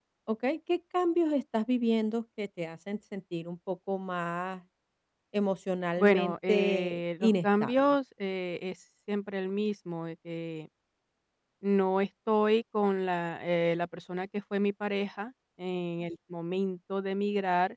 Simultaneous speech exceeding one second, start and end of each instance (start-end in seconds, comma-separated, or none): 6.0-7.9